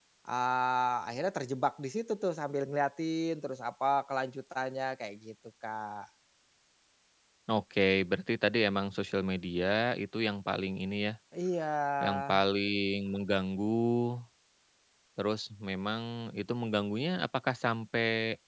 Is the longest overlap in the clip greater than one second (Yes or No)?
No